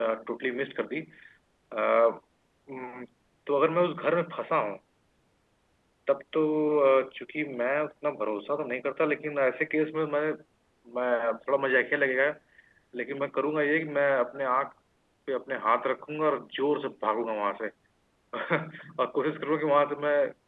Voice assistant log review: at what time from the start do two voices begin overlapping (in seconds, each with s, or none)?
none